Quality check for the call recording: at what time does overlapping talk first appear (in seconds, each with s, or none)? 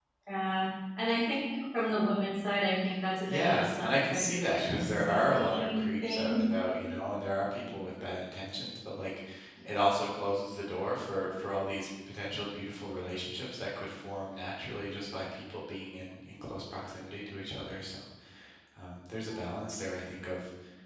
3.2 s